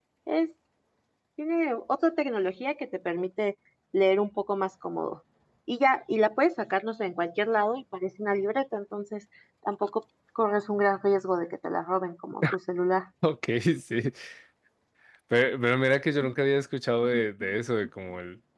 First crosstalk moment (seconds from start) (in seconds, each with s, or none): none